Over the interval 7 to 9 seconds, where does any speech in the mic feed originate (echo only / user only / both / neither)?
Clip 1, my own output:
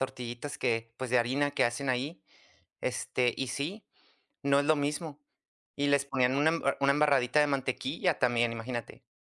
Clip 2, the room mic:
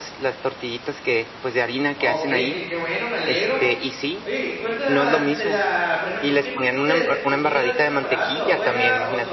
both